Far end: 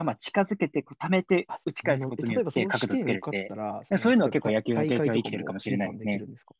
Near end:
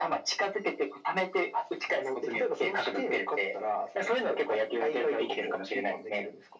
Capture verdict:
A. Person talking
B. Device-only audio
B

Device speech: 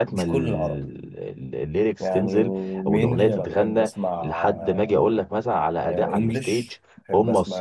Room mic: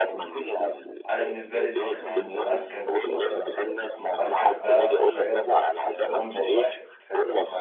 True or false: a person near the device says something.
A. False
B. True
B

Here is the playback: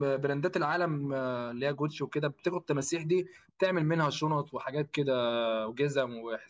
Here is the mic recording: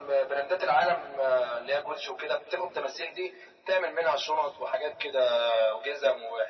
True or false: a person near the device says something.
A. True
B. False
B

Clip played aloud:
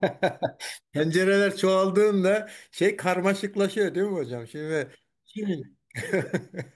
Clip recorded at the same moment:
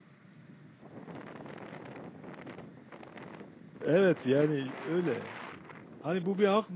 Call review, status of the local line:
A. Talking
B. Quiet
A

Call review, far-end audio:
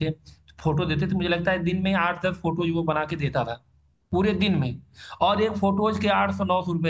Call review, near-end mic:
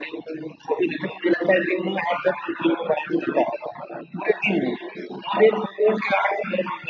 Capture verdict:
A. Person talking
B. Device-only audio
B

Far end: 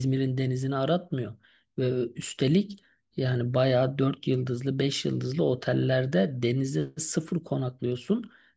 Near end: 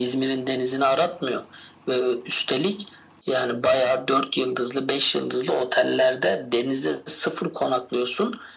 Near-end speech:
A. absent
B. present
A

